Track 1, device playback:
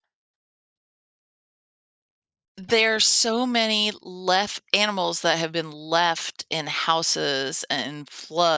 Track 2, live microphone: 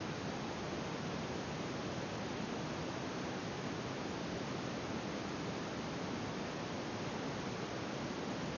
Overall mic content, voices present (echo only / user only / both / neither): neither